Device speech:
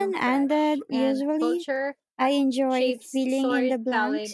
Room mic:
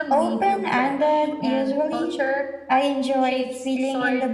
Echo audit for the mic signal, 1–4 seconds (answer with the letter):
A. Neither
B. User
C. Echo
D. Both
C